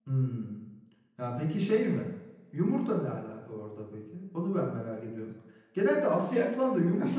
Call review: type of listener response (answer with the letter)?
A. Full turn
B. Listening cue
B